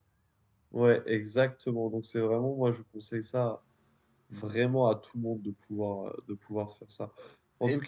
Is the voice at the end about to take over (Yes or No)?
No